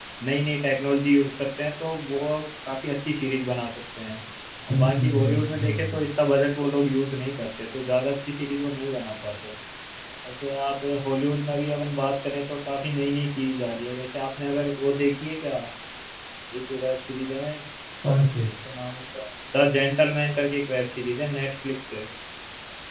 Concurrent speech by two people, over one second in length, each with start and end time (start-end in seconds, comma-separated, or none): 4.7-6.0